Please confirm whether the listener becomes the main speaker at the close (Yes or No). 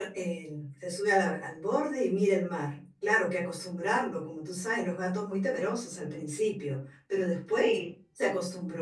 No